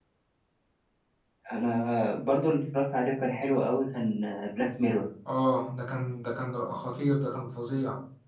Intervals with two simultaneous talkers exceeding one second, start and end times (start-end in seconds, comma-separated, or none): none